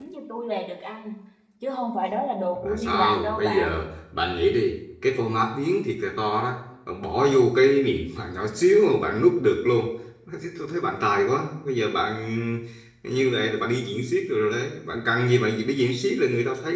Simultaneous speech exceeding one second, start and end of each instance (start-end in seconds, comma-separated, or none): 2.5-3.9